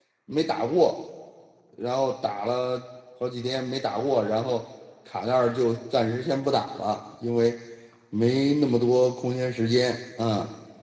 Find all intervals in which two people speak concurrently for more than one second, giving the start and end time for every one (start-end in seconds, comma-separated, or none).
none